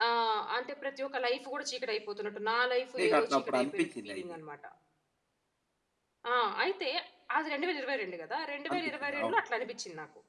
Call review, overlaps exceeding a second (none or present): present